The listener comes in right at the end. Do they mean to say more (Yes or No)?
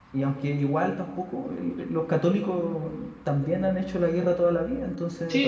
Yes